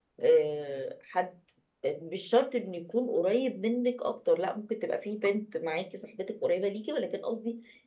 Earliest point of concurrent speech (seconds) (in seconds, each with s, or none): none